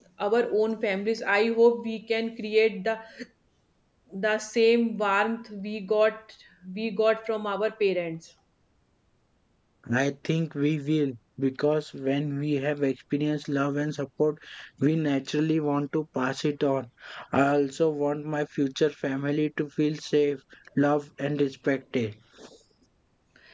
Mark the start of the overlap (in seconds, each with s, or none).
none